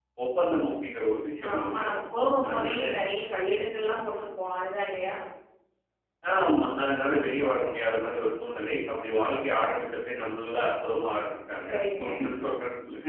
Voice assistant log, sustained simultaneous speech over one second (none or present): none